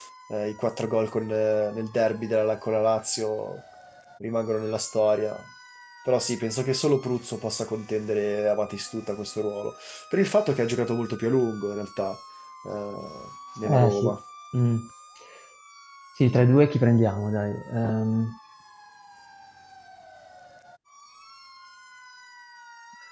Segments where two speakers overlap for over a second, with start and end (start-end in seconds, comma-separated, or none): none